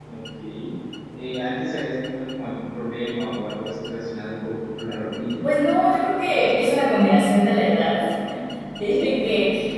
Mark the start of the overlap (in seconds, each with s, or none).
none